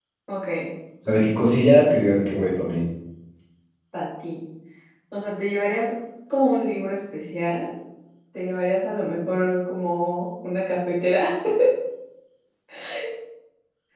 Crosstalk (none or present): none